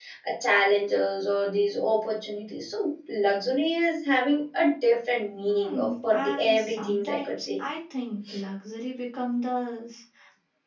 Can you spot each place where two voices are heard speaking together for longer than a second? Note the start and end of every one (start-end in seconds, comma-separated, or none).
5.5-7.6